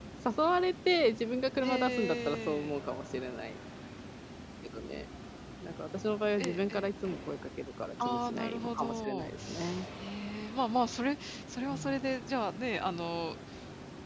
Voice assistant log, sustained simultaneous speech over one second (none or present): present